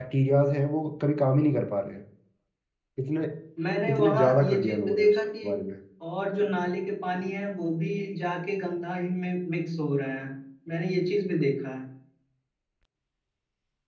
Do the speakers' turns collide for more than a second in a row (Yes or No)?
Yes